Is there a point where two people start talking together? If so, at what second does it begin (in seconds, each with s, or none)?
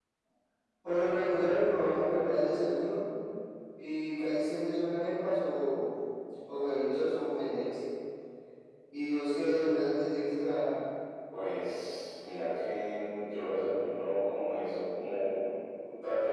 none